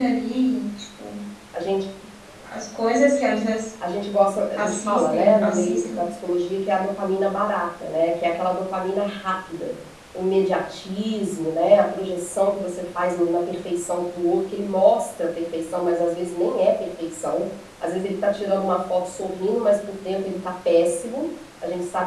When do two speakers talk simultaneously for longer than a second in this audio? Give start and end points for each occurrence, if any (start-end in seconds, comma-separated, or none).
4.6-6.0